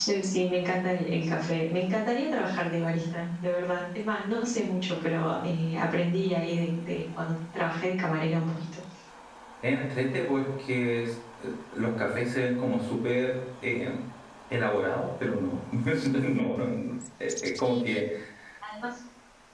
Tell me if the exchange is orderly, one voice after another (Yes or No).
Yes